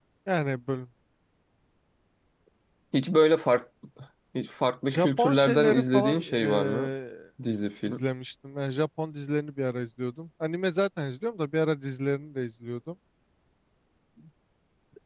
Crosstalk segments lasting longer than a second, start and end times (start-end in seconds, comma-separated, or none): 4.9-6.9